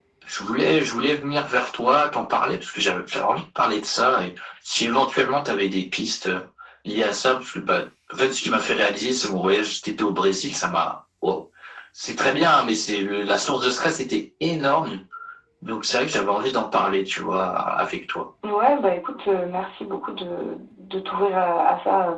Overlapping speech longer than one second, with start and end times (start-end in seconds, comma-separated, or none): none